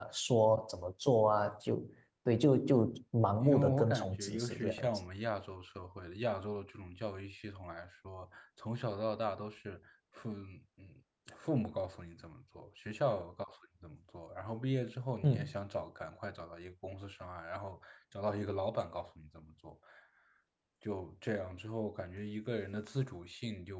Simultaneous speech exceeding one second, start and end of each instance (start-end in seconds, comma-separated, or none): 3.4-4.9